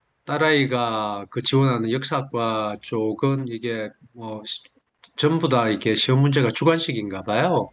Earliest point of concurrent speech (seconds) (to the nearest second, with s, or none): none